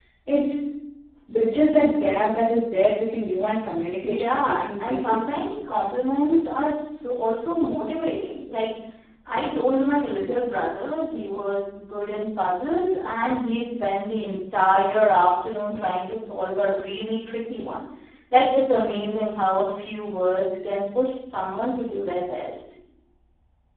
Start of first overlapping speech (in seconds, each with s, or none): 4.0 s